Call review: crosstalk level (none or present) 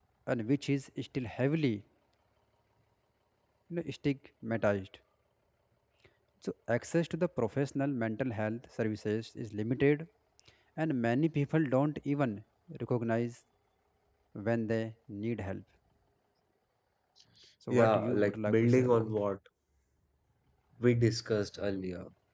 present